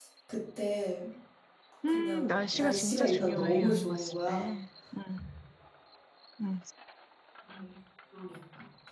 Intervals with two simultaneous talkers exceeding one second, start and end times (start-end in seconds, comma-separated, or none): 1.9-4.5